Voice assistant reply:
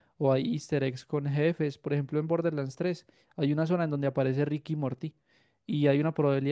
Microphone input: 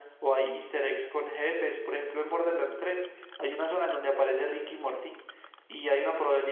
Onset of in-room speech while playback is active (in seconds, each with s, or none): none